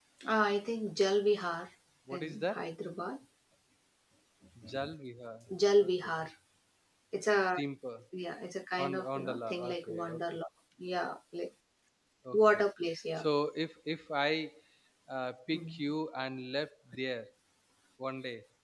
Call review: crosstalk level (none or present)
present